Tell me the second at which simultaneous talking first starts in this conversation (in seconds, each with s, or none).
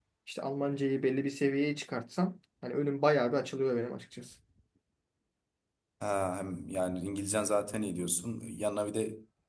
none